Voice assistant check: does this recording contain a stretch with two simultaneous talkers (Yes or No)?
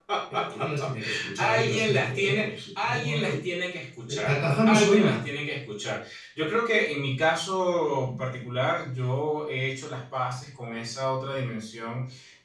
Yes